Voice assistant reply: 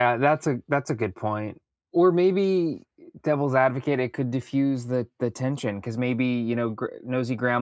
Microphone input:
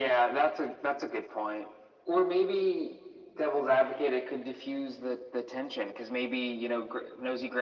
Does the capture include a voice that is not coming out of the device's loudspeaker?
No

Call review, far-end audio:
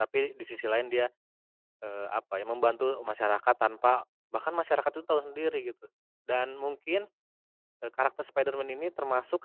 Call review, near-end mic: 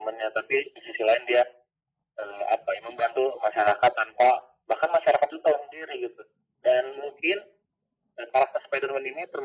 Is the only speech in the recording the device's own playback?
Yes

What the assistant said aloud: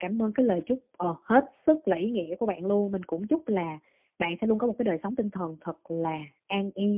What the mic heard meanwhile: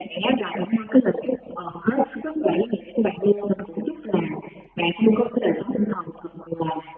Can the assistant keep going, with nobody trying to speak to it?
Yes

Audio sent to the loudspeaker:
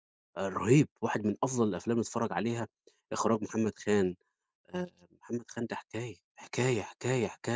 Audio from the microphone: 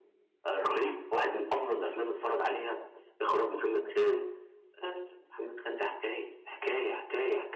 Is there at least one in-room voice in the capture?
No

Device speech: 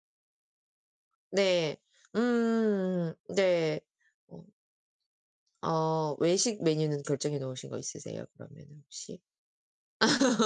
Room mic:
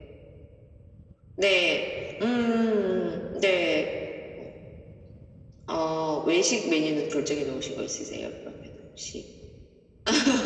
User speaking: No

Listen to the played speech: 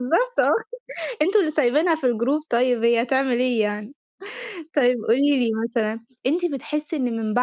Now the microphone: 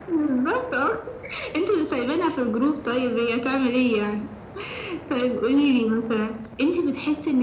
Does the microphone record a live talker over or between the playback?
No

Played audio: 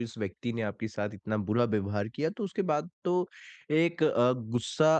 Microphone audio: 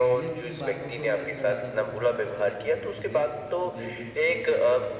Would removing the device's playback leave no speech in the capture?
No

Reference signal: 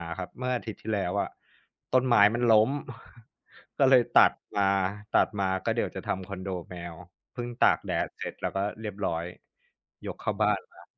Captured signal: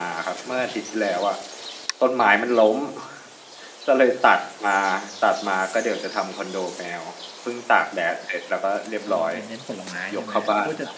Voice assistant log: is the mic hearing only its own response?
No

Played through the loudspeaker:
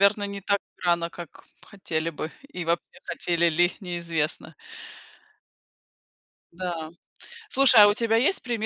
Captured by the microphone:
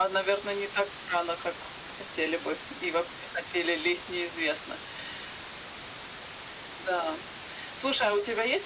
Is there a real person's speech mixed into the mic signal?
No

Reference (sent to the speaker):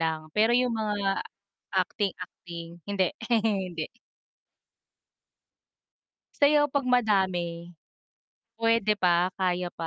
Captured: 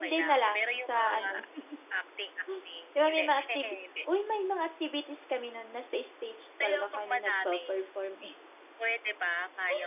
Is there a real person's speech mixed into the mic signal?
Yes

